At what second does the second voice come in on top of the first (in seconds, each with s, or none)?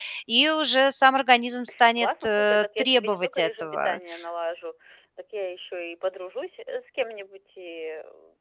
2.0 s